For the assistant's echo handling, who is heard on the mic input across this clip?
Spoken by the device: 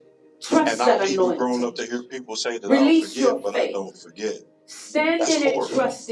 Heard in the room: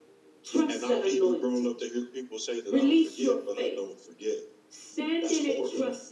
echo only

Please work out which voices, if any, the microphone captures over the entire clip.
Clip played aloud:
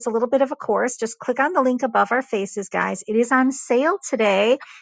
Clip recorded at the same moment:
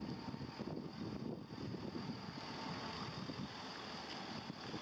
neither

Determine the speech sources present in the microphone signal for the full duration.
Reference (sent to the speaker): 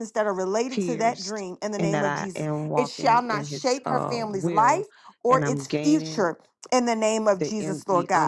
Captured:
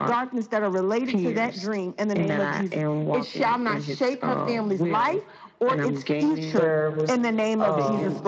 both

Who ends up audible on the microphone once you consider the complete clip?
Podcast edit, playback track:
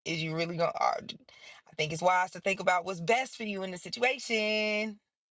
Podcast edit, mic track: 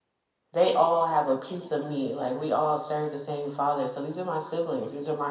user only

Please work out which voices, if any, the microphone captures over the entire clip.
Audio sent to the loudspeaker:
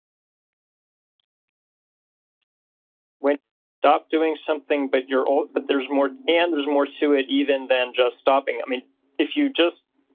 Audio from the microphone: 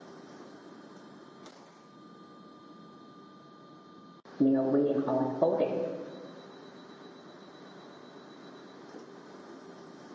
user only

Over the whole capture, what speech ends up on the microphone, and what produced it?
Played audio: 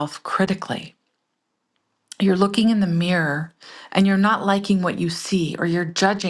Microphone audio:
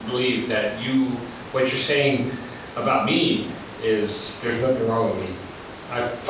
user only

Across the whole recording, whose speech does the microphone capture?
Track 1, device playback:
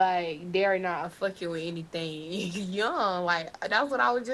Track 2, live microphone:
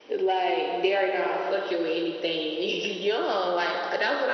echo only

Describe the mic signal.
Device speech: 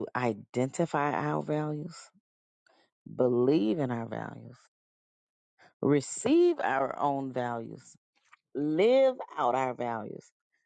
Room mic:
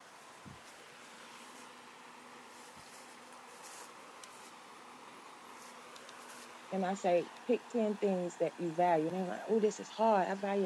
user only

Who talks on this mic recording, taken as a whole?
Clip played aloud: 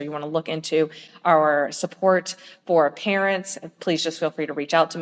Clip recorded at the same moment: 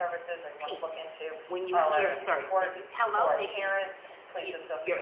both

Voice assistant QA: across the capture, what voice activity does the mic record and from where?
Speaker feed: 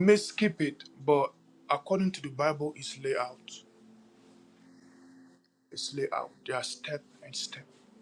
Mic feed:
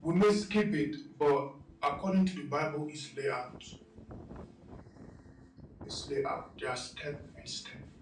echo only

